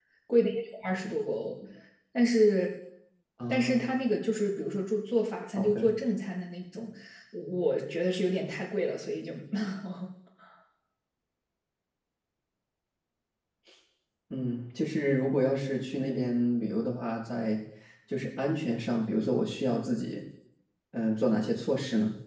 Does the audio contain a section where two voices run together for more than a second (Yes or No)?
No